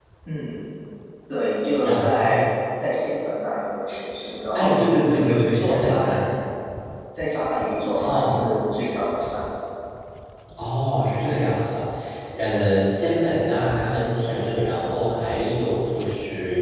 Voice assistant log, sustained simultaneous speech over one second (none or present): present